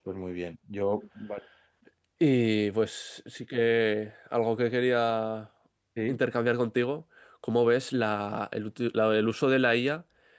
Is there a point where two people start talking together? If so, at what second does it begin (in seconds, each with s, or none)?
none